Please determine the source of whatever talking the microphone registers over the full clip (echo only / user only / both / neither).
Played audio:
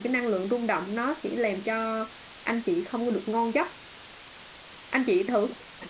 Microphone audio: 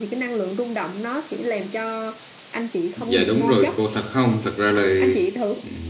both